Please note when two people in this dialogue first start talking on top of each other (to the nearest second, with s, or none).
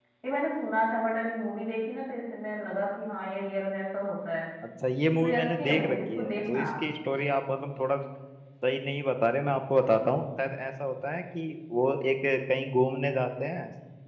5 s